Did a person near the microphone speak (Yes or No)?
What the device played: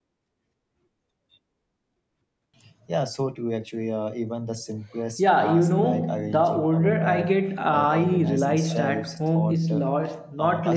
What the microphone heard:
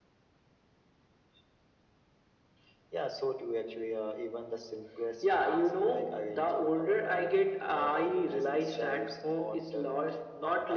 No